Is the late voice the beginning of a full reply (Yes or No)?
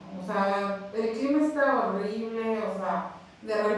No